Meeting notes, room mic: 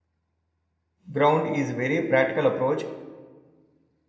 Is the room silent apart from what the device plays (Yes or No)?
No